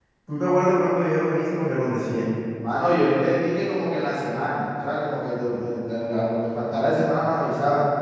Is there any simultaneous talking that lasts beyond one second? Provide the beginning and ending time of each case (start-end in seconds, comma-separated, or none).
none